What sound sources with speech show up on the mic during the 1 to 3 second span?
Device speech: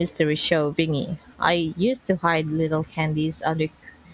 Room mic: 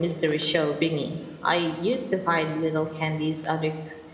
echo only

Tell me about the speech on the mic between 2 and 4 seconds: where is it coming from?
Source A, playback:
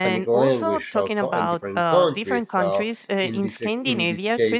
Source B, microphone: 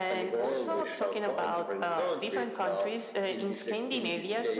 echo only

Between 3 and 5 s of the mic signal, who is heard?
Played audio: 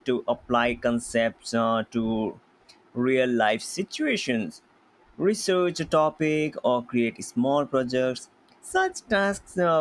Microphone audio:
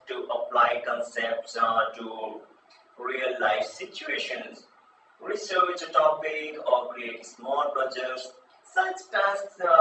echo only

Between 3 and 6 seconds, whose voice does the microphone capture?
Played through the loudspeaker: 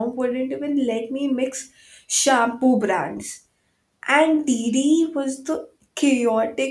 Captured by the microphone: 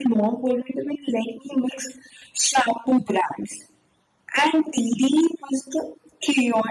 echo only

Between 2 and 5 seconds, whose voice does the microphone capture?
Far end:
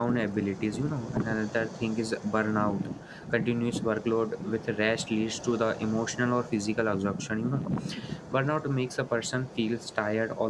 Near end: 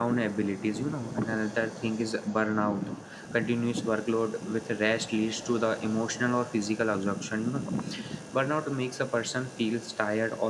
echo only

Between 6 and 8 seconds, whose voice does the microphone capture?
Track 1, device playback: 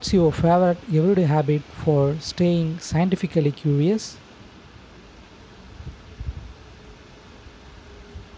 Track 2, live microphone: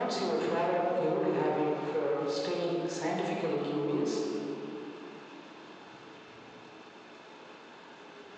neither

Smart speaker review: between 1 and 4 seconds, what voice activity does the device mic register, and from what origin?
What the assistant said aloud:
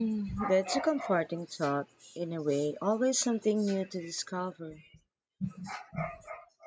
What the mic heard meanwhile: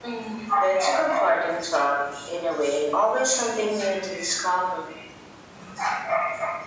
echo only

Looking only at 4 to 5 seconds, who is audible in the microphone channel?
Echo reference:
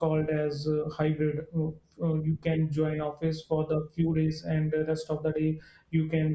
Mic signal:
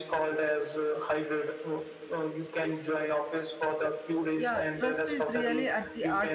both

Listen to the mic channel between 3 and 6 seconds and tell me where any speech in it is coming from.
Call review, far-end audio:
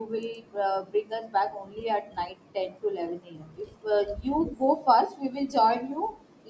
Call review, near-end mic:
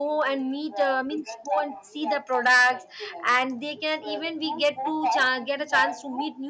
both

